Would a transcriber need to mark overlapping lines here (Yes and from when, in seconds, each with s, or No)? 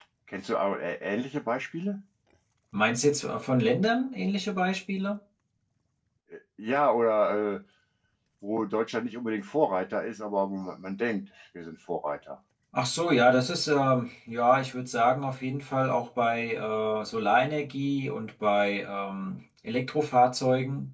No